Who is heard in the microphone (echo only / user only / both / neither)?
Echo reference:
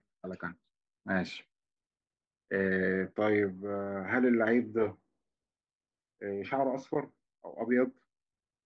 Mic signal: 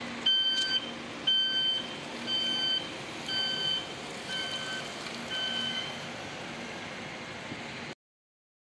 neither